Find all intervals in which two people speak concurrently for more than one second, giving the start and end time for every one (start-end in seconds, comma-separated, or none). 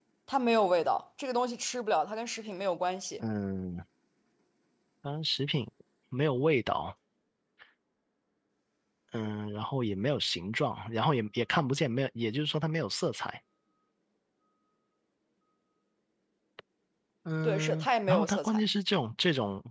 17.4-18.6